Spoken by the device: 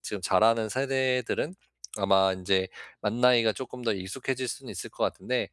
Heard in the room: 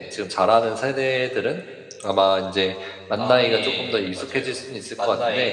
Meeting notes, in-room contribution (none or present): present